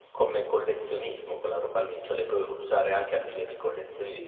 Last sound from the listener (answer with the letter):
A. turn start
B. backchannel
A